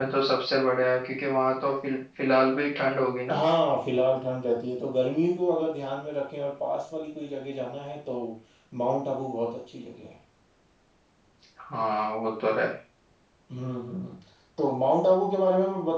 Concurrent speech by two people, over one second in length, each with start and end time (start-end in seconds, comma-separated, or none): none